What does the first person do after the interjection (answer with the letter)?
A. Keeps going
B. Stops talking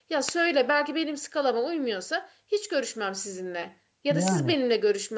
A